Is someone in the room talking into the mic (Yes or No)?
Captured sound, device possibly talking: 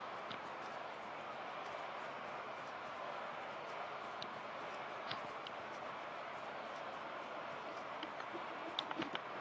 No